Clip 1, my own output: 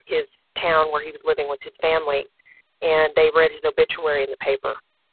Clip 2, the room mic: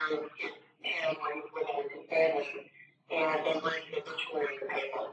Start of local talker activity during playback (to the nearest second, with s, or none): none